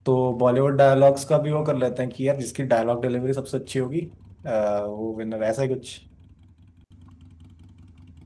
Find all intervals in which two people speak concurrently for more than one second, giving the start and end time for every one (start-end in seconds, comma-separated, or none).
none